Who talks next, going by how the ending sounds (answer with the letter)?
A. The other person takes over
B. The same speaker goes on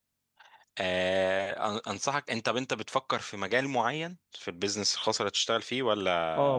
A